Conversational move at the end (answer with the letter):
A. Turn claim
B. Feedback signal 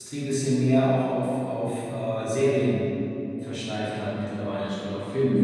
A